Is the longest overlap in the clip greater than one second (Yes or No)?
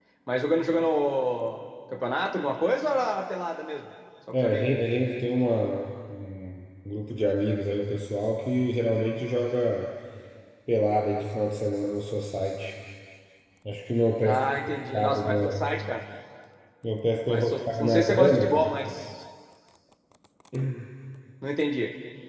Yes